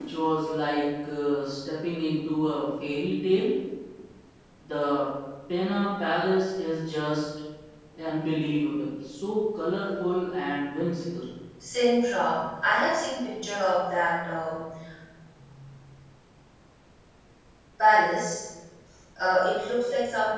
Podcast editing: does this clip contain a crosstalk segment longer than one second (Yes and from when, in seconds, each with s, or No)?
No